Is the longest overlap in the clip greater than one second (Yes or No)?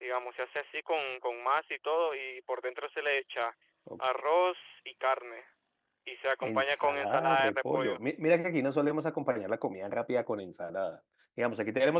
Yes